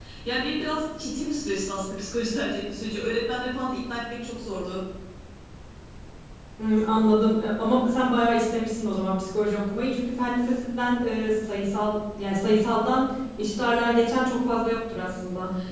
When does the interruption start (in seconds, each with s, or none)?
none